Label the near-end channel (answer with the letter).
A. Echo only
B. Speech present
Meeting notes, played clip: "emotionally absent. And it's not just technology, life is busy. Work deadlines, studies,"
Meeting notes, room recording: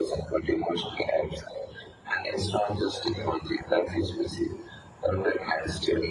A